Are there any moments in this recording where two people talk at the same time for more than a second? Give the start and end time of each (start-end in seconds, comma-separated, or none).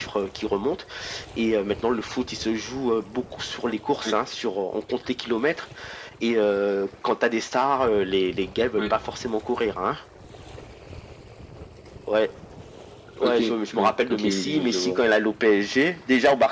13.8-15.0